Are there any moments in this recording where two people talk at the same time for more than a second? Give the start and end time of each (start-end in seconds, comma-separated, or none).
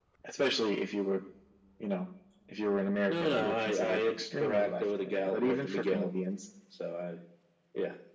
3.1-6.1